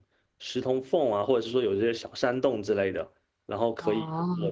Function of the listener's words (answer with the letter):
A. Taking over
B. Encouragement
B